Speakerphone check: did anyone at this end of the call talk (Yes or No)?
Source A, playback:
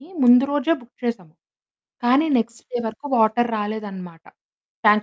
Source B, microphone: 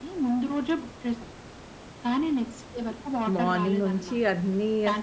Yes